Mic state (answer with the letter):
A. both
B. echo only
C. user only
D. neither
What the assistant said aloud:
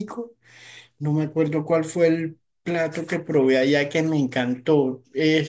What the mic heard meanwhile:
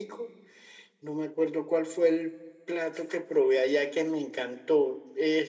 B